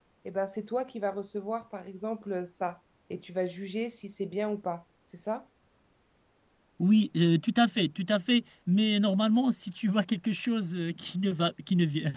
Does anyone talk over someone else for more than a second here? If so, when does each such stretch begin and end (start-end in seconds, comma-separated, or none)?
none